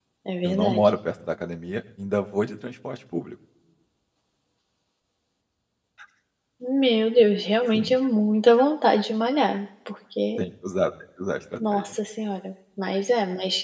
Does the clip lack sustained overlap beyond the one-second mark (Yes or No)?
Yes